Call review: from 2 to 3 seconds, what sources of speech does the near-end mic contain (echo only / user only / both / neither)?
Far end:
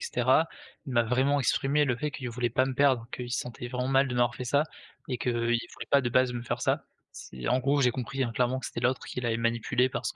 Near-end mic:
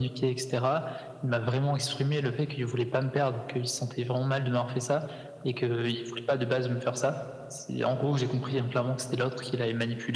echo only